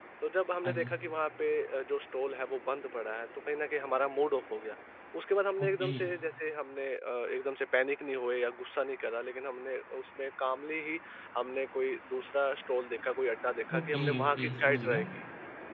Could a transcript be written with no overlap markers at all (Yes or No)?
No